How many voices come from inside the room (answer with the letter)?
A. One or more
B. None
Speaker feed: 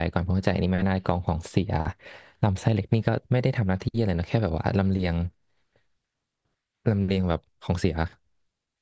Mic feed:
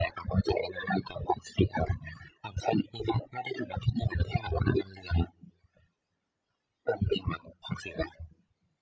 B